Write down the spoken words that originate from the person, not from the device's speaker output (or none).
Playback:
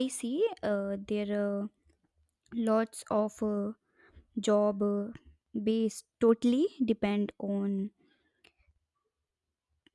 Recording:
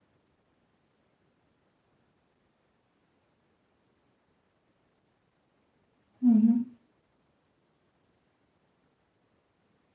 Mm-hmm.